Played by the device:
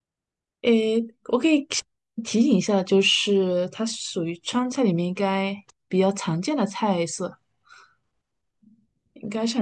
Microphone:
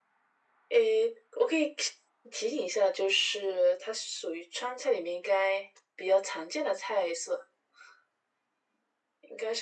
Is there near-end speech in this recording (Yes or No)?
No